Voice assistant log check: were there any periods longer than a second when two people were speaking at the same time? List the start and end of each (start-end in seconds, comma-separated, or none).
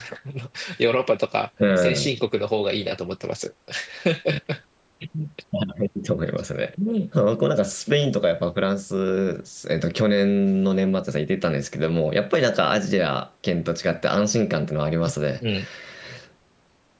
none